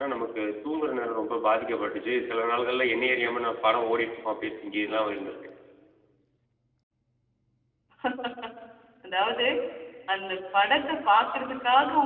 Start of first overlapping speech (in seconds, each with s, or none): none